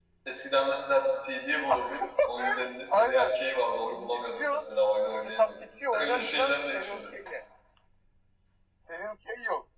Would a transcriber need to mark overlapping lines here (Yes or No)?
Yes